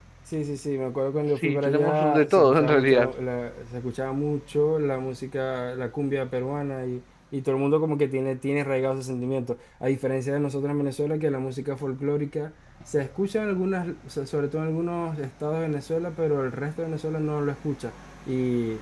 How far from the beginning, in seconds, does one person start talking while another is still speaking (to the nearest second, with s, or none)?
1 s